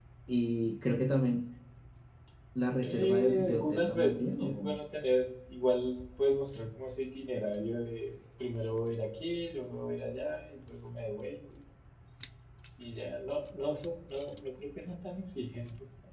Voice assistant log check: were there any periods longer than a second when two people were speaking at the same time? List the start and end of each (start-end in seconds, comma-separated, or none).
2.8-4.8